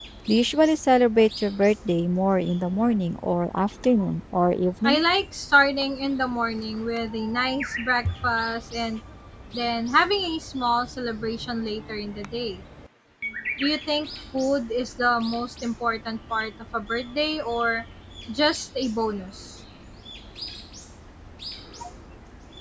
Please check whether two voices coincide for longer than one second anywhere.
No

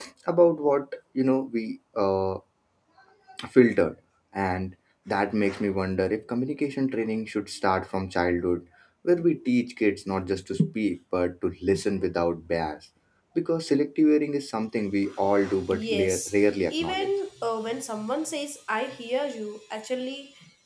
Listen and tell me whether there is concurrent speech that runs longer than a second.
Yes, from 15.5 s

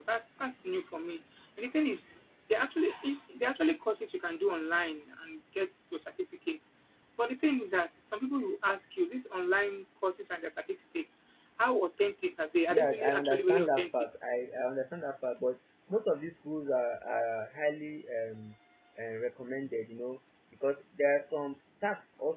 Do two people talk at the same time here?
Yes, from 12.7 s

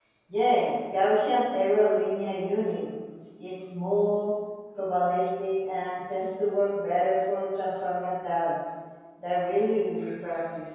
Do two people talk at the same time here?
No

